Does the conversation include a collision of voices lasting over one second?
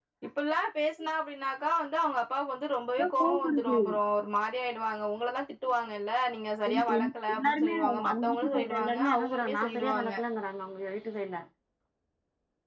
Yes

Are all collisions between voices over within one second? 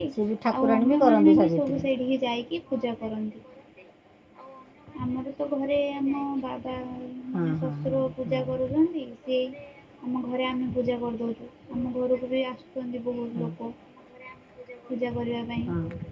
No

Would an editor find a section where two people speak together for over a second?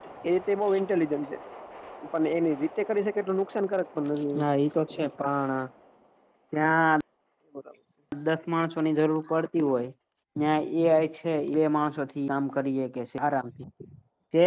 No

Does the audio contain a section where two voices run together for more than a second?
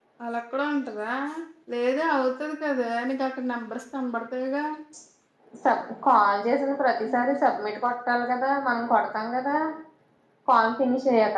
No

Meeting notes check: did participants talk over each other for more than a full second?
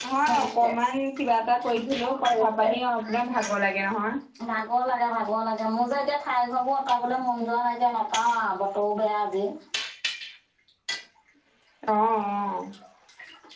No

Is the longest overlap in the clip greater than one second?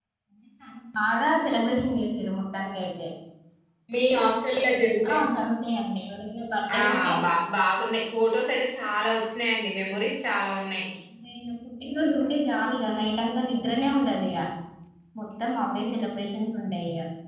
No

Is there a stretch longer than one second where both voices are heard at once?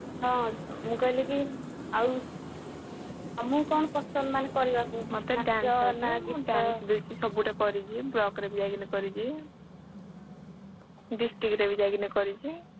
Yes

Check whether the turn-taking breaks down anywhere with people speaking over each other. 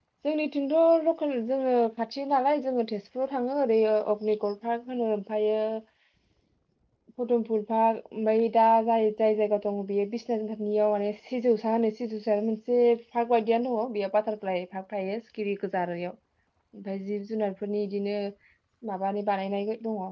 No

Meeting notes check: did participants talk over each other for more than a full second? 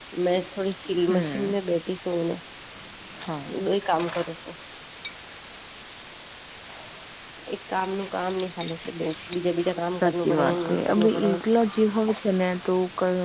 Yes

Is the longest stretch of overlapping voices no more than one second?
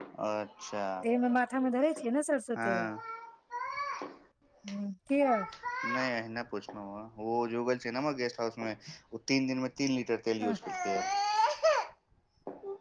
Yes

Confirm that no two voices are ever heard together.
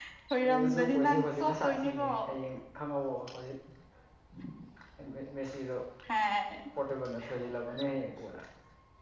No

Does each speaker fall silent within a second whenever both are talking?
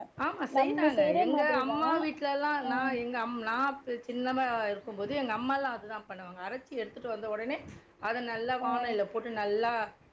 No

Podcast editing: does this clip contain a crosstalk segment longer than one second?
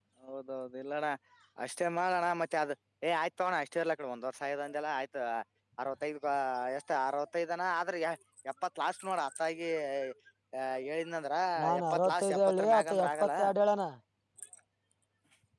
Yes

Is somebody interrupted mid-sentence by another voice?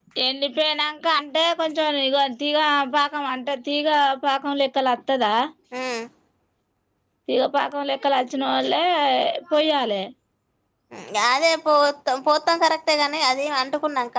No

